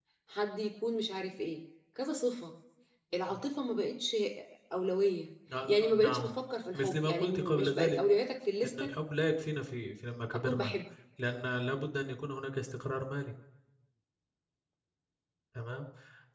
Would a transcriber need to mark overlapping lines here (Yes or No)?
Yes